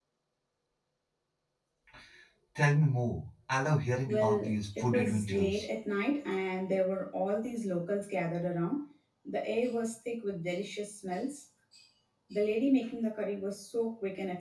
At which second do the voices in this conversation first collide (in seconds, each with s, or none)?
4.0 s